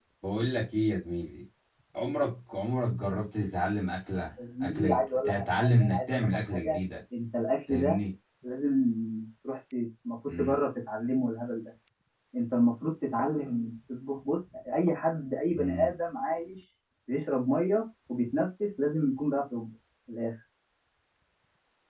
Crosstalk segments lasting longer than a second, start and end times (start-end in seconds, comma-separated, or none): 4.6-6.8